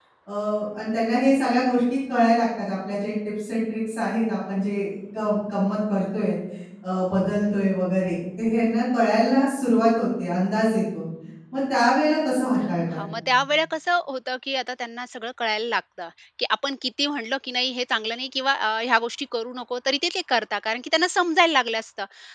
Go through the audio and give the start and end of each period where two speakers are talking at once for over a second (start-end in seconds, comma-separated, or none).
none